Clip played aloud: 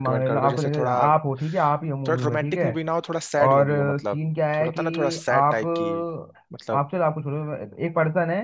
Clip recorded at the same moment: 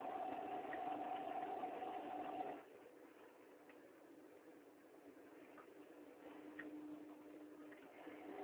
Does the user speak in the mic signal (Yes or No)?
No